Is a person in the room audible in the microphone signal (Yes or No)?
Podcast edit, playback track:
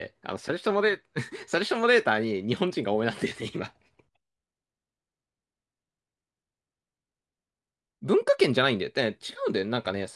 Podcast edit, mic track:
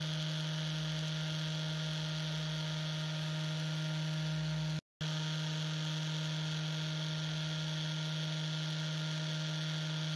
No